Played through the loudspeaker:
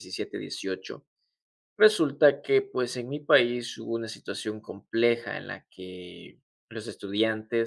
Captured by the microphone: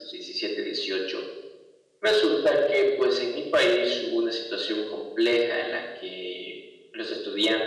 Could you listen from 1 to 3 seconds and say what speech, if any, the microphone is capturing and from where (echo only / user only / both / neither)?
echo only